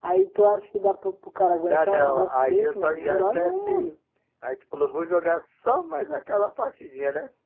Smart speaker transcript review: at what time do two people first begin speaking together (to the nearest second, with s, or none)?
2 s